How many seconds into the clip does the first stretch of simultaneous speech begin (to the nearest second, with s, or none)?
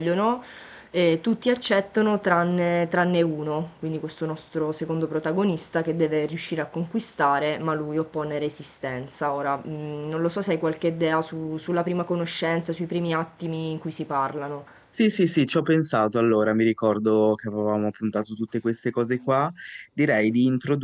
none